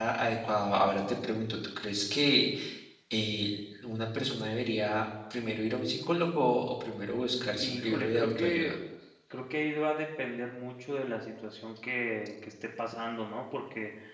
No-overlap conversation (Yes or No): No